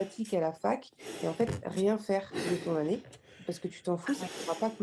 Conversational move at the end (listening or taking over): listening